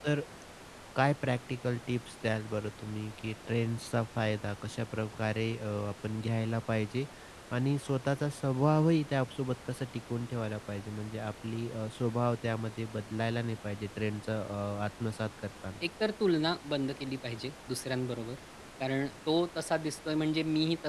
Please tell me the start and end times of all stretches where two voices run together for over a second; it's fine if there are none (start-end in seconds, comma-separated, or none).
none